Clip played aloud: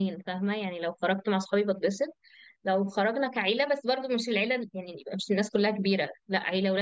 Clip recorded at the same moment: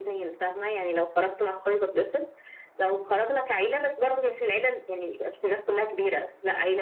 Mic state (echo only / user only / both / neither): echo only